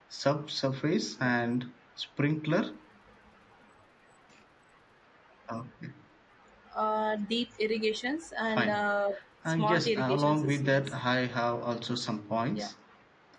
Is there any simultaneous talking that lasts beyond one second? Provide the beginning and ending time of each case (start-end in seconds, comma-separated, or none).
9.4-10.9